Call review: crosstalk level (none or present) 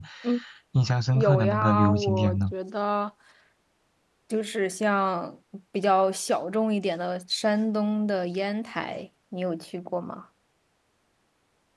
present